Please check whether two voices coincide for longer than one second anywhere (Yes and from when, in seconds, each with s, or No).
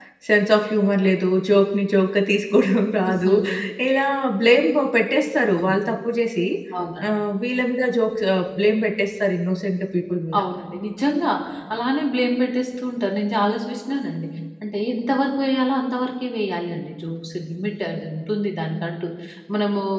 No